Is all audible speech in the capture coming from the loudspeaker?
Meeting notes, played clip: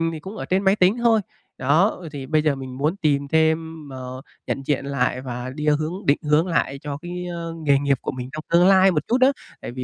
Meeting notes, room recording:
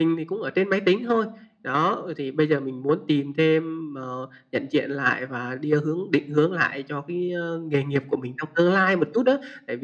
Yes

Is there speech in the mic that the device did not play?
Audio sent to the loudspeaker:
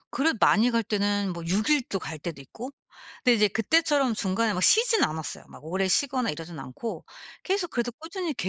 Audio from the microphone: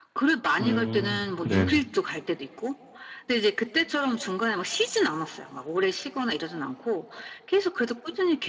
Yes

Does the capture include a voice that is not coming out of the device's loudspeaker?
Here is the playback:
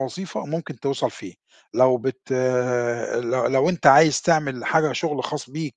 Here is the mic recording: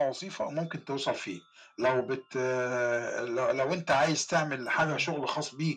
Yes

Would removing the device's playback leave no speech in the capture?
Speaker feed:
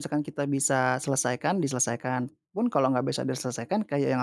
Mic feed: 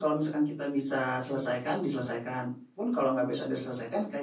Yes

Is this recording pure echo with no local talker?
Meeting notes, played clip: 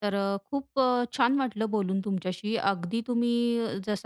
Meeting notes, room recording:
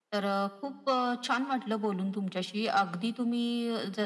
Yes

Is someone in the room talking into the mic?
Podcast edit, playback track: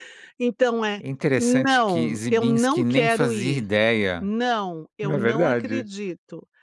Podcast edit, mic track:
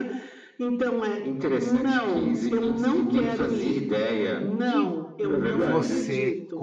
Yes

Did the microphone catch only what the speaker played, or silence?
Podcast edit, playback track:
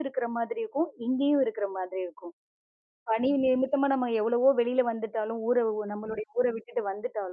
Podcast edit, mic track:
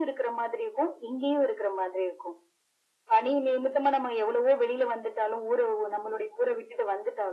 Yes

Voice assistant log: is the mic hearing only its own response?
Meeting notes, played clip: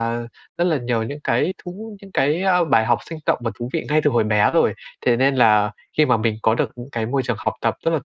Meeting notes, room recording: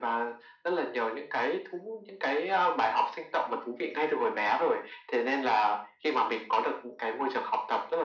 Yes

